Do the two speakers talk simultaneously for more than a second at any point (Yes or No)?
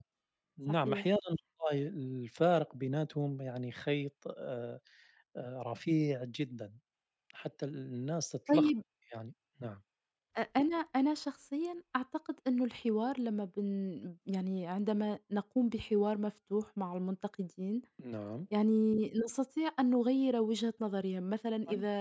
No